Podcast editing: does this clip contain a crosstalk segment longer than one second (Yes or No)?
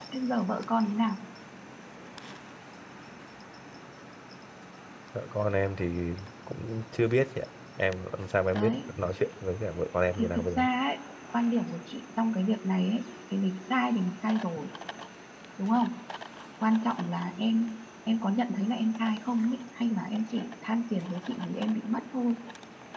No